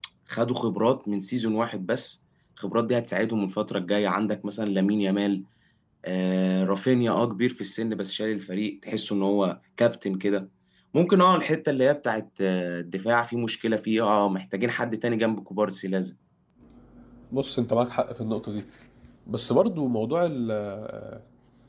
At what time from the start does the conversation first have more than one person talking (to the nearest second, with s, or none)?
none